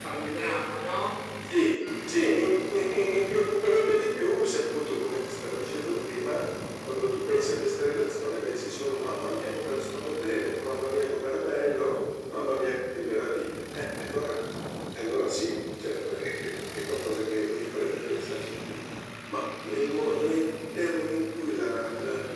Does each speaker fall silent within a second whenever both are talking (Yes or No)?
Yes